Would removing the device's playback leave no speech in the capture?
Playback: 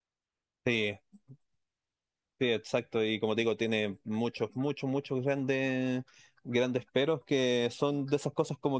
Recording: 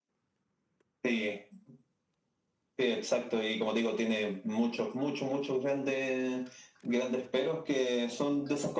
Yes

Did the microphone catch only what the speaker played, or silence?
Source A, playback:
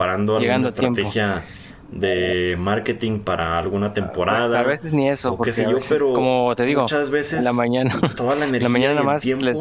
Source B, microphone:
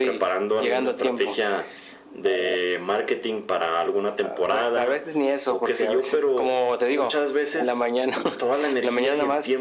Yes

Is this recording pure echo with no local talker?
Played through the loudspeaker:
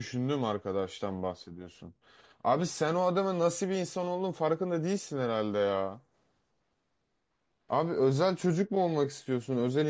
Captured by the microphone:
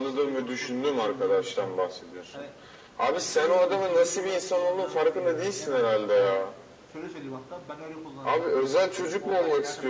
No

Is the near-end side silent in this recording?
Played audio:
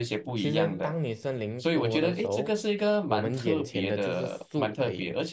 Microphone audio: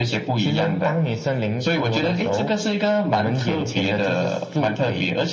Yes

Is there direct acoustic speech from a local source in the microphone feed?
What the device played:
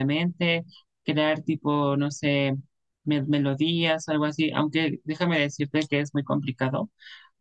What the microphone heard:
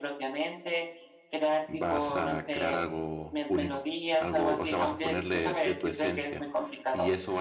Yes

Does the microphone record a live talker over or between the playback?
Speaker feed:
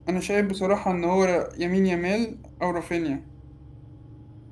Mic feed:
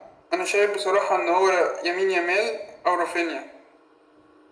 No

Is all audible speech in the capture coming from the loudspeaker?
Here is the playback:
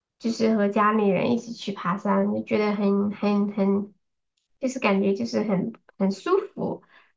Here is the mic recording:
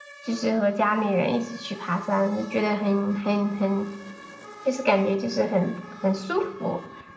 Yes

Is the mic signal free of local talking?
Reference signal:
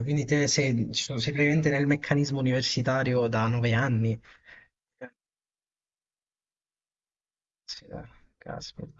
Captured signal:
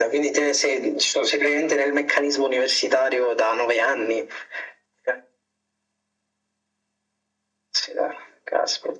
Yes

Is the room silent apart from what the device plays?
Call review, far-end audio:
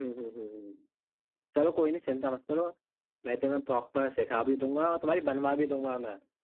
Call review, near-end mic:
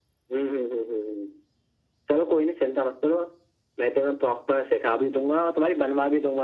Yes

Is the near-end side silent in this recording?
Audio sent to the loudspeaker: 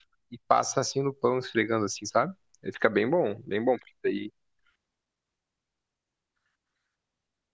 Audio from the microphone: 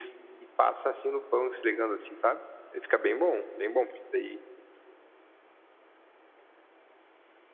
Yes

